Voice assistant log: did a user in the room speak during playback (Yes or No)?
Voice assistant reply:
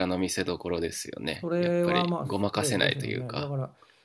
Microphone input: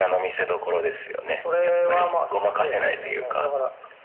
No